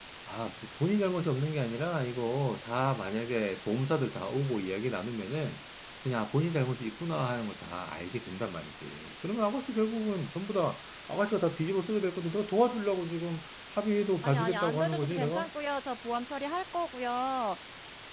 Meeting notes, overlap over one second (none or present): present